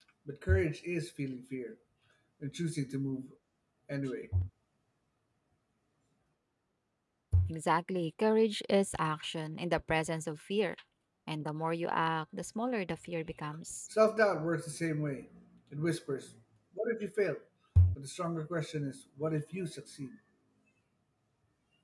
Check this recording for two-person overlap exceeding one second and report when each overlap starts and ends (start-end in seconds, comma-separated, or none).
none